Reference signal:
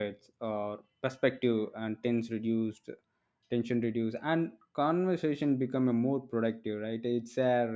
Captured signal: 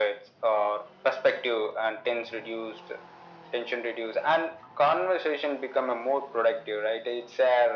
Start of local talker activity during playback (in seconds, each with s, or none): none